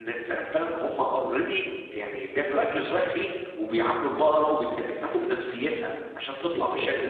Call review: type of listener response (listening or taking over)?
taking over